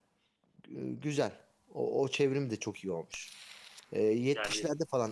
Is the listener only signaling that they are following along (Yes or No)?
Yes